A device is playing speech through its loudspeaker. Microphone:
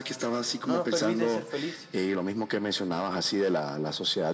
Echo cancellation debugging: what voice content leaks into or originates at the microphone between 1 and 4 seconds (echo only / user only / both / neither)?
both